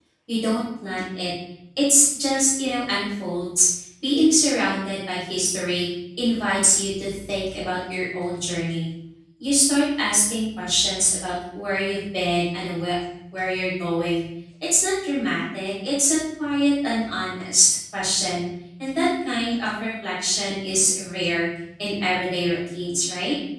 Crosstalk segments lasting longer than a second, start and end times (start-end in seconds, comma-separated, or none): none